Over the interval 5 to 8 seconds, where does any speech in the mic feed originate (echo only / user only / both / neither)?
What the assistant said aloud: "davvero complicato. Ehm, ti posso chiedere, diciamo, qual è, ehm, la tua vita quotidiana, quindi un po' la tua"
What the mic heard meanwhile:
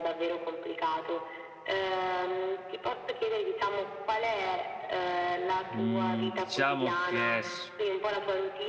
both